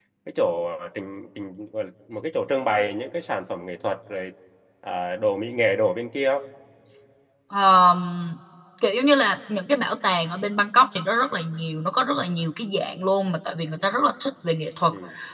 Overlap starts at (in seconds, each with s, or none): none